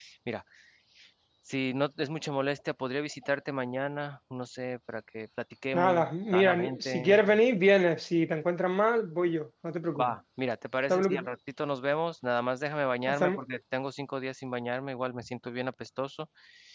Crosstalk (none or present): present